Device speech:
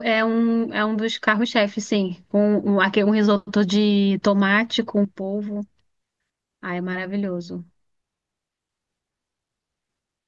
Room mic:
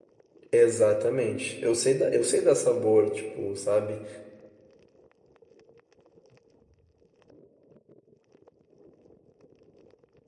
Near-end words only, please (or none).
Exatamente. Eu sei da, eu sei dar sabor, tipo, sabe?